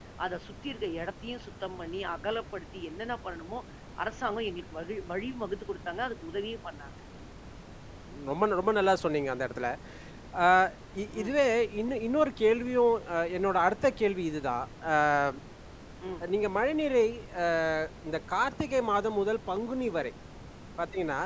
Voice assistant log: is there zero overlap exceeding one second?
Yes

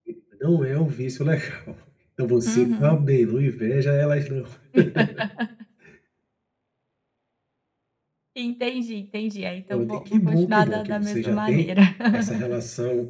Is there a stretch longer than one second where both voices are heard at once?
Yes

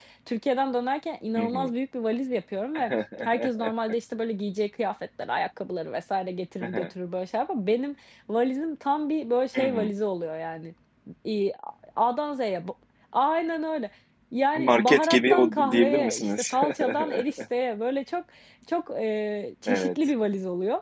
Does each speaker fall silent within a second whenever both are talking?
No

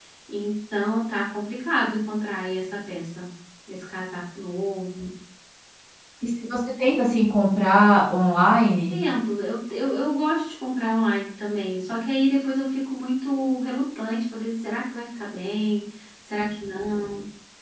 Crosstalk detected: No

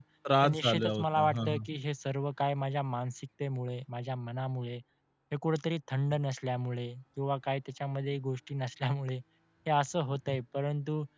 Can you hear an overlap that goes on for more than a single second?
Yes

